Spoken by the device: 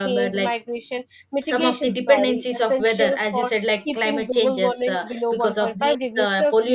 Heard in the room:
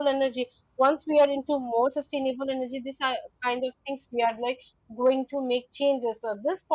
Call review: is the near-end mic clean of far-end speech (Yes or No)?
Yes